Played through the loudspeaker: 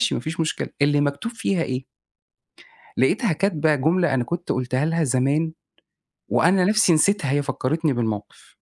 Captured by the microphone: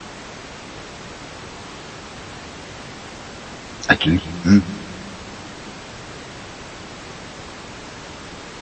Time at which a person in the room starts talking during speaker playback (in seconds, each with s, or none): 3.9 s